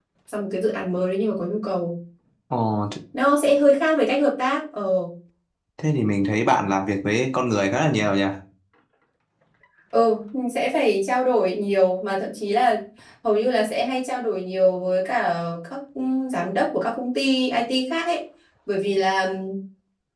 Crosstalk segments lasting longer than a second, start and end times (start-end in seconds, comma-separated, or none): none